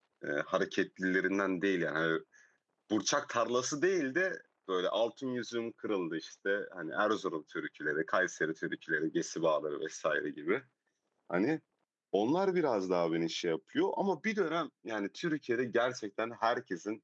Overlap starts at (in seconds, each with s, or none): none